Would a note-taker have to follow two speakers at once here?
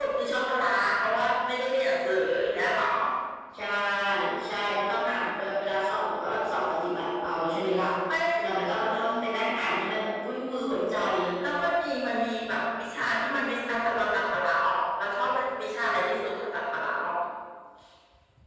No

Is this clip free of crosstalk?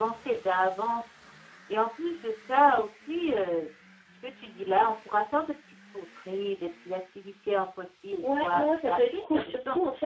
No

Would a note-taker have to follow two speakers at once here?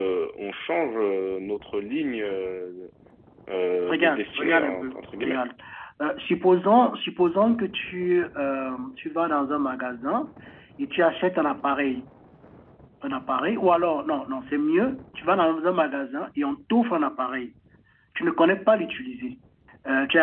Yes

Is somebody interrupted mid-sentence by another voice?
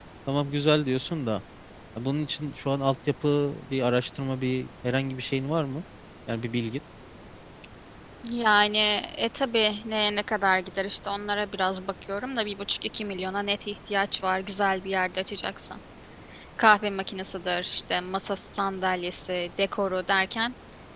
No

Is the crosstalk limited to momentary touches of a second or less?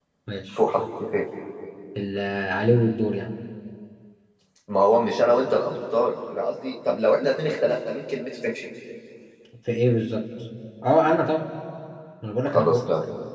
Yes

